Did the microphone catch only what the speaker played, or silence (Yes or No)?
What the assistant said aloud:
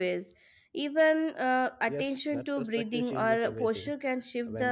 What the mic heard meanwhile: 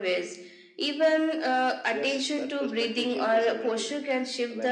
Yes